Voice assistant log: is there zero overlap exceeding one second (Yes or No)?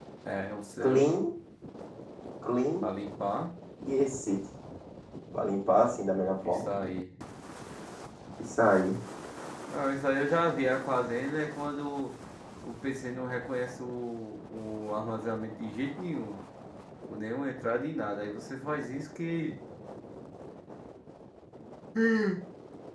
Yes